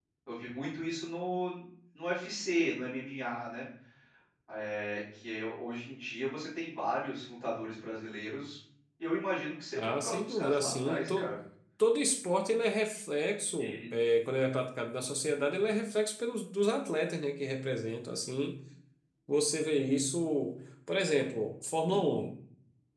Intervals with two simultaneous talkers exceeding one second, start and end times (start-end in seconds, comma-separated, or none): 9.8-11.3